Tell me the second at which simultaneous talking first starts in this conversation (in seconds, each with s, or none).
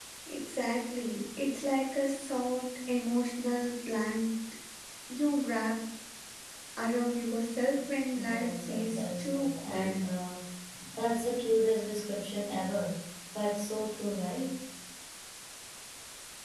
8.2 s